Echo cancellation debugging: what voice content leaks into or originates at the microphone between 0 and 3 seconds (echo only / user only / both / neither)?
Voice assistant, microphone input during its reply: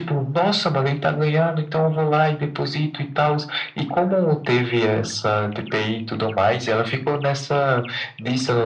echo only